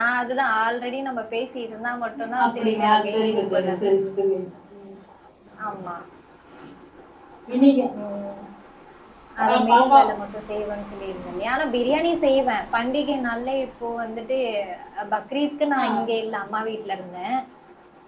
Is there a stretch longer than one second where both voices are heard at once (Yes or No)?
Yes